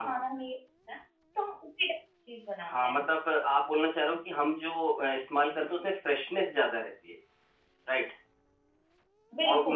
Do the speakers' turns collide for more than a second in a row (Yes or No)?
No